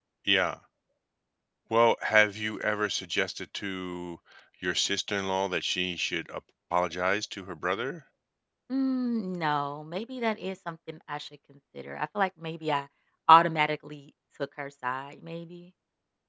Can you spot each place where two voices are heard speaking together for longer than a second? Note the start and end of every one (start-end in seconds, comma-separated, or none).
none